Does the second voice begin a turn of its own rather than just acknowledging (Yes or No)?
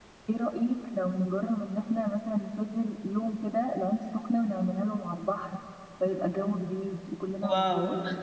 Yes